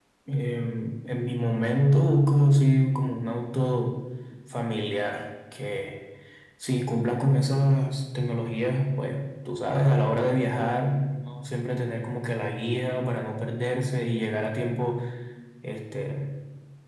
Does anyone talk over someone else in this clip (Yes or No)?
No